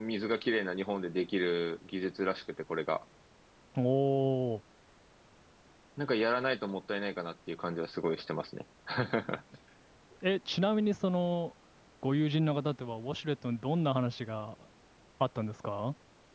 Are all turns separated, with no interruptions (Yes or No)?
Yes